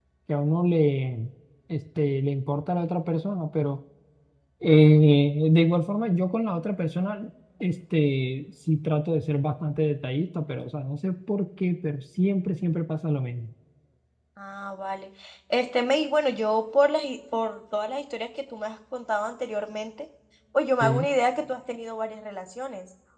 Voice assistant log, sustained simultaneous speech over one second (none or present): none